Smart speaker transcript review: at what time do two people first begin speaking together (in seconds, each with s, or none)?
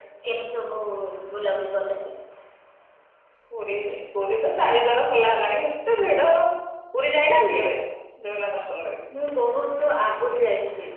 none